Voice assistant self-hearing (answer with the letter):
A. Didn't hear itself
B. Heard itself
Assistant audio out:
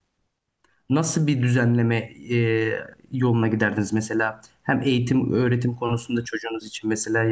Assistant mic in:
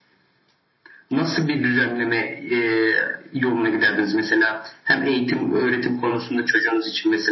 B